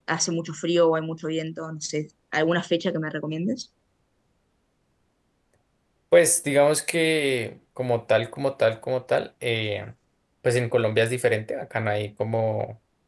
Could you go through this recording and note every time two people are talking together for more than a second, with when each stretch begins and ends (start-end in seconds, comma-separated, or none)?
none